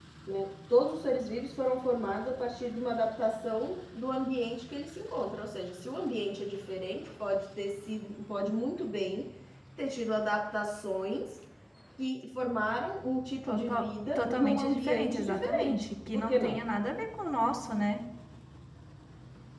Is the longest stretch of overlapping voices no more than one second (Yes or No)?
No